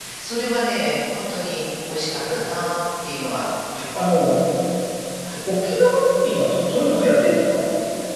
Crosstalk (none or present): none